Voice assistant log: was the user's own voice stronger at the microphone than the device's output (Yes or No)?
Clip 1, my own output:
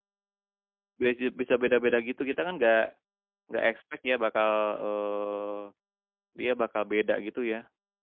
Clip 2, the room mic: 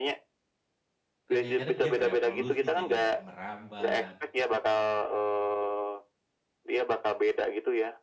No